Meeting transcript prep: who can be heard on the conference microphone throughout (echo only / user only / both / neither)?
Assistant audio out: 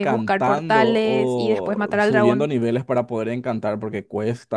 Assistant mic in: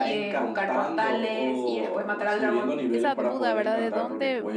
both